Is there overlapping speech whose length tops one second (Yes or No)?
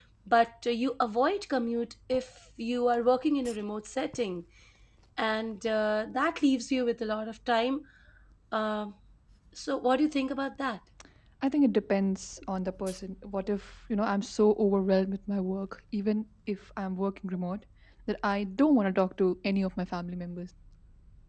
No